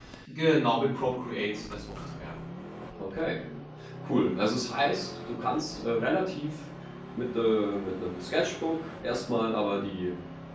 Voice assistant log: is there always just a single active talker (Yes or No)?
Yes